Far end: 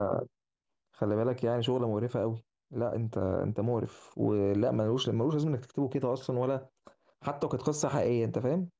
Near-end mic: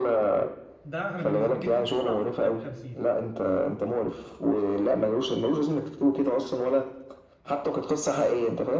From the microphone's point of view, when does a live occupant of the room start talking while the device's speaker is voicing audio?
0.8 s

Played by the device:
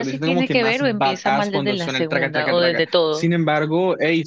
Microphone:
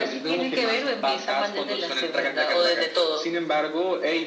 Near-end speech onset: none

